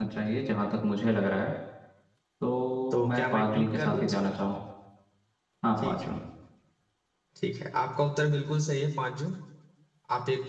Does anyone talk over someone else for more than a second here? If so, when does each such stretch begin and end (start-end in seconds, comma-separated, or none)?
2.9-4.3